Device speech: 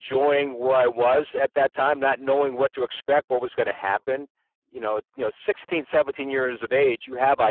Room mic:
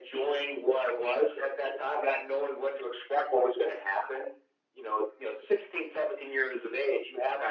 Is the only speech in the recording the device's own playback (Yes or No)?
Yes